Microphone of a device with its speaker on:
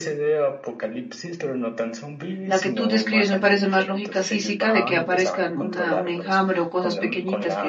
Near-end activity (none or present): present